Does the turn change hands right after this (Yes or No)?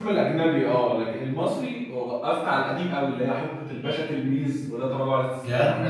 Yes